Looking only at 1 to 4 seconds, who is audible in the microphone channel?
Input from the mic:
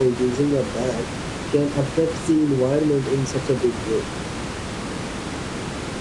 user only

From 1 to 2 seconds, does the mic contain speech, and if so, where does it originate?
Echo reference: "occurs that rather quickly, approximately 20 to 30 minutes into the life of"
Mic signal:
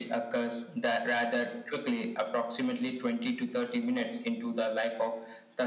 echo only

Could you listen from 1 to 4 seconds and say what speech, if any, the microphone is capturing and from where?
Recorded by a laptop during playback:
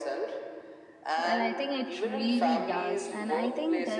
both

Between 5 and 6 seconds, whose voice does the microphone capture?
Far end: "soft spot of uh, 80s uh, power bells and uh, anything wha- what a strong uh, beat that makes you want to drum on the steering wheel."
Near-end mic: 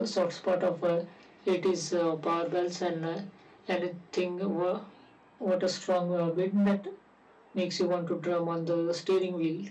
echo only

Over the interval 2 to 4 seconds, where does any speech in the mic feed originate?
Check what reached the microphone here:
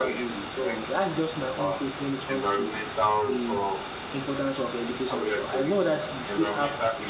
both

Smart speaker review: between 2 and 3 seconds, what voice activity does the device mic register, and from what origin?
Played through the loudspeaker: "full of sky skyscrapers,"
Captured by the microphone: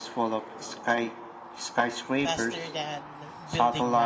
both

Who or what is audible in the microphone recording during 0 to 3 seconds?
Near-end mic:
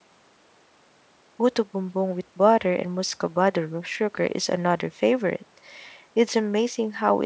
user only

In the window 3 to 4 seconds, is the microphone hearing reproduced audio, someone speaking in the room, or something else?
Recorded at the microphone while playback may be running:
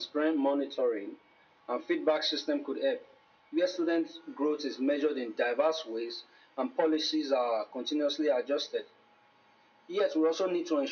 echo only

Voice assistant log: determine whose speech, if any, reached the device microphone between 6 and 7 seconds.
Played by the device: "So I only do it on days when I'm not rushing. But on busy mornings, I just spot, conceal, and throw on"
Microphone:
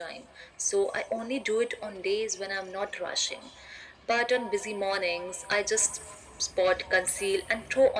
echo only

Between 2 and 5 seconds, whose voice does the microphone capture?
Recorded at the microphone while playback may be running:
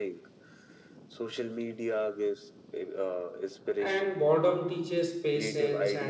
both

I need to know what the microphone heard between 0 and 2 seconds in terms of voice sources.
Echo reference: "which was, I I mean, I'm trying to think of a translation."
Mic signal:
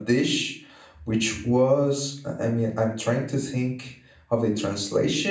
echo only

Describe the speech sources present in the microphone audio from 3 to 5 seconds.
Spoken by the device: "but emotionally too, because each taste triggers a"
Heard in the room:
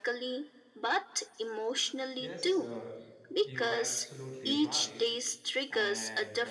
both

